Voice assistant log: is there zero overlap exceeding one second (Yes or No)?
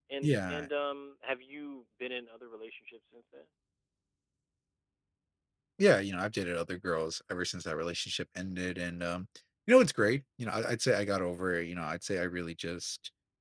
Yes